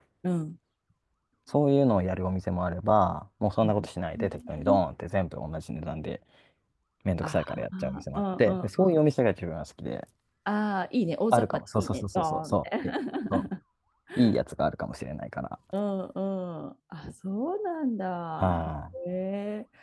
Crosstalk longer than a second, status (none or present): present